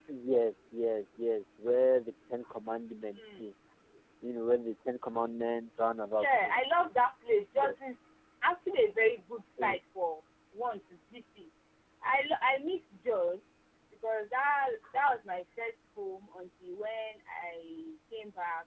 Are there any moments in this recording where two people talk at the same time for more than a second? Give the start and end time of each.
none

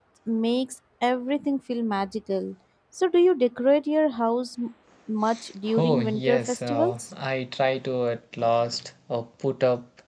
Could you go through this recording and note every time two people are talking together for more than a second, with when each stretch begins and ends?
5.8-7.0

